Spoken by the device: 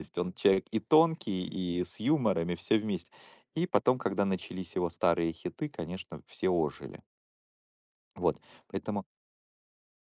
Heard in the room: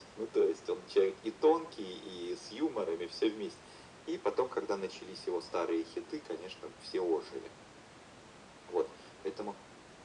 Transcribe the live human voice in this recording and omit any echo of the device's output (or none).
none